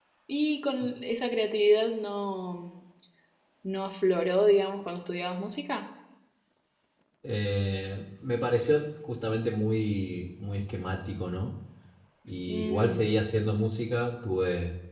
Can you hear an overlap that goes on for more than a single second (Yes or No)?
No